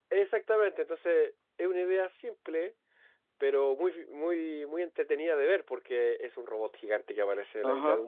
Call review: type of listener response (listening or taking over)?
taking over